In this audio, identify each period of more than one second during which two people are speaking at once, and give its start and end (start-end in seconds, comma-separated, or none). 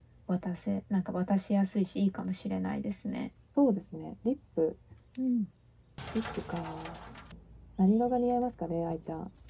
none